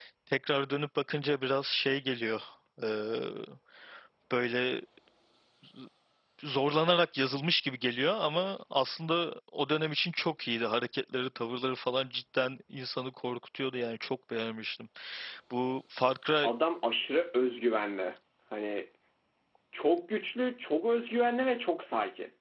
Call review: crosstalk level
none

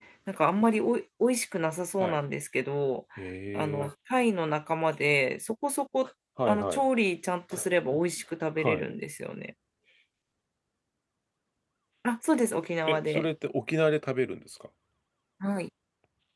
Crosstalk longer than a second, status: none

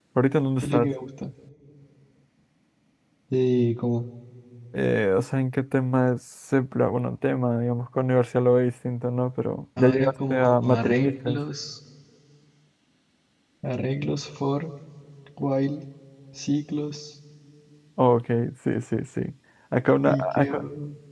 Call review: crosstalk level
present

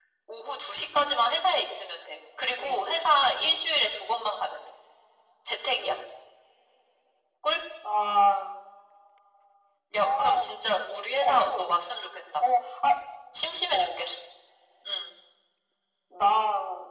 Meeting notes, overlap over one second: none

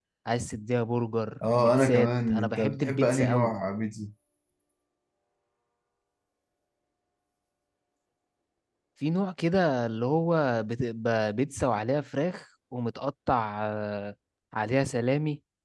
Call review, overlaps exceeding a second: present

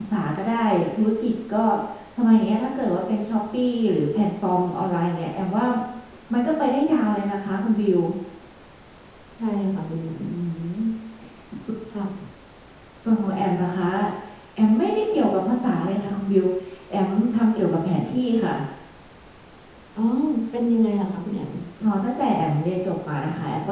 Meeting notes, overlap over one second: none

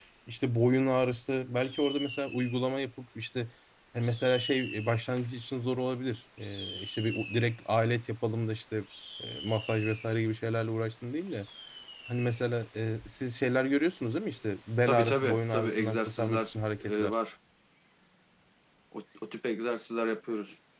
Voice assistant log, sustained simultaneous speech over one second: present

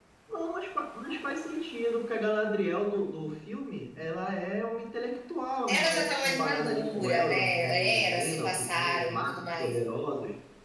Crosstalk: present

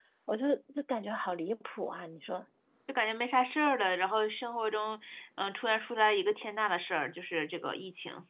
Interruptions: none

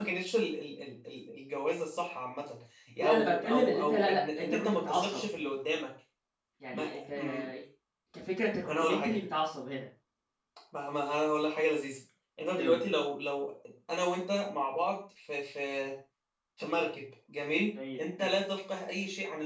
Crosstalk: present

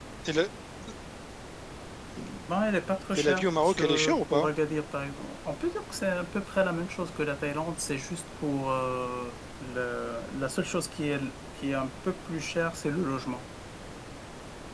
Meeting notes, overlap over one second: present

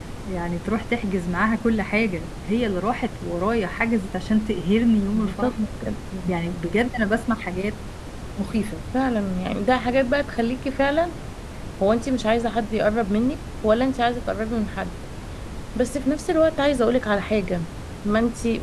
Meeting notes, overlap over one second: none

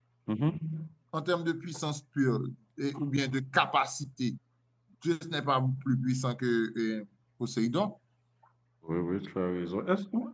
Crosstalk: none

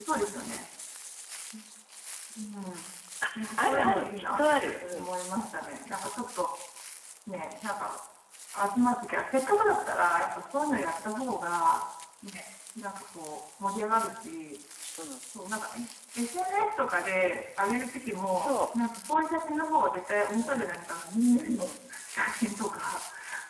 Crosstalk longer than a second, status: present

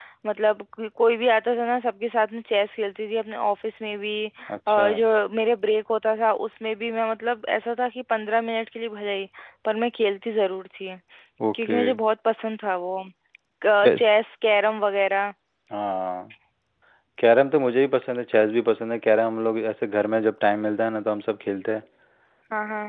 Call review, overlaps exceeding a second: none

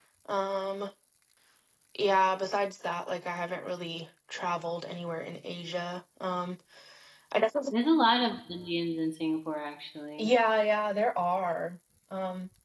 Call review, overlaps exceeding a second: none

